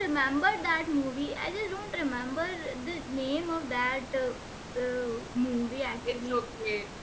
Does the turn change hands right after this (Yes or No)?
Yes